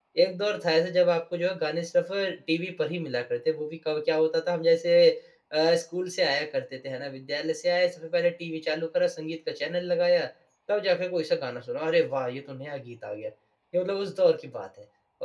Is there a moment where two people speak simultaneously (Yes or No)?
No